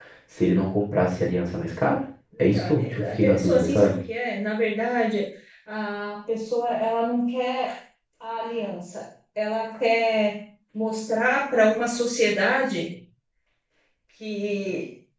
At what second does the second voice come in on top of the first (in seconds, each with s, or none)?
2.5 s